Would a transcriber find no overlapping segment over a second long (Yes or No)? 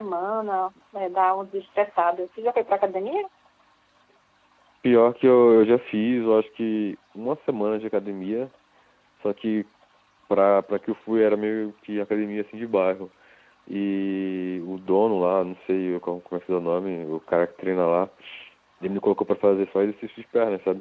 Yes